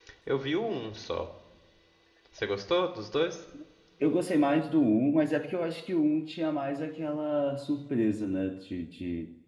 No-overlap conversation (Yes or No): Yes